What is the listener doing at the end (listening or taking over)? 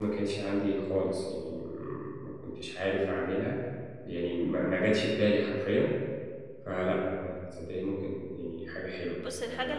taking over